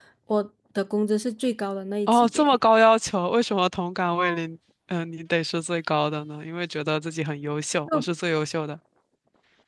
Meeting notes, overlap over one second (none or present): none